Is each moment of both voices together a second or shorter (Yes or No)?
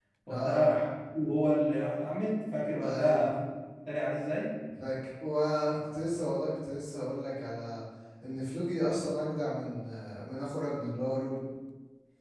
Yes